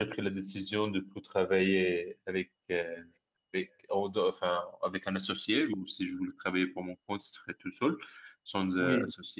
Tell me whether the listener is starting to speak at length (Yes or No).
No